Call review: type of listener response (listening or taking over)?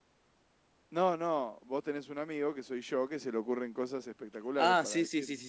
taking over